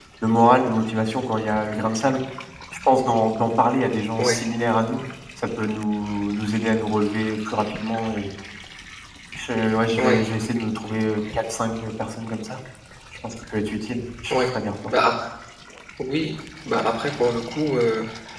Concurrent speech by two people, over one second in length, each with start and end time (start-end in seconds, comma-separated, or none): none